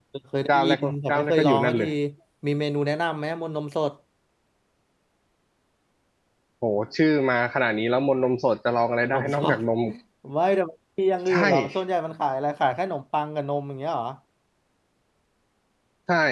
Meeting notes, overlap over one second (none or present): present